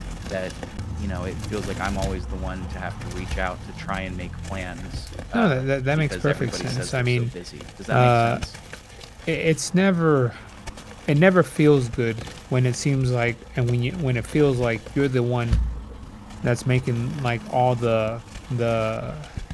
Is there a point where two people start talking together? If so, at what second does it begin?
5.3 s

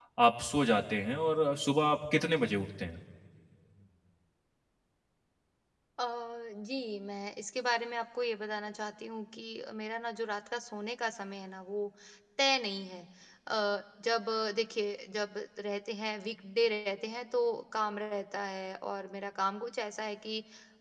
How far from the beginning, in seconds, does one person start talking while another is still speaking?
none

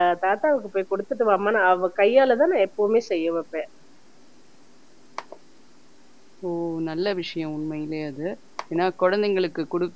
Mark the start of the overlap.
none

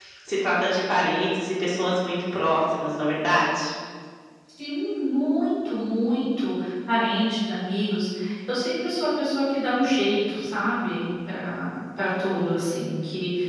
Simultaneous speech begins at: none

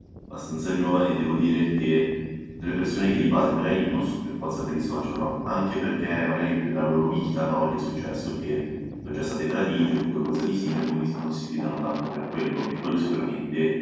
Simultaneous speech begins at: none

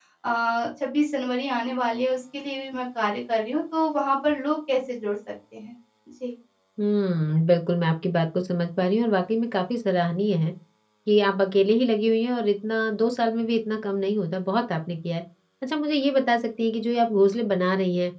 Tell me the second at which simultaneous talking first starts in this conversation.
none

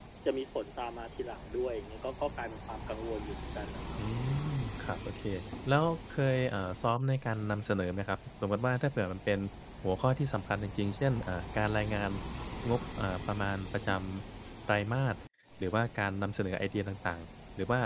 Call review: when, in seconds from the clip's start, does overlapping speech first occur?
none

